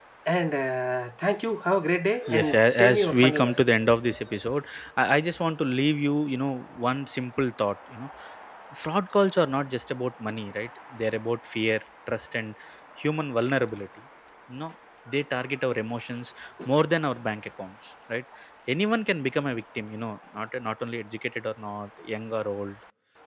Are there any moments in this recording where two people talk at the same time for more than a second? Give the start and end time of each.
2.4-3.6

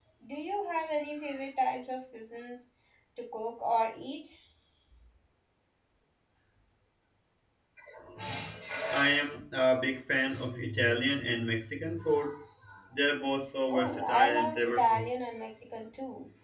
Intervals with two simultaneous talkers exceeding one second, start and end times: 13.7-15.1

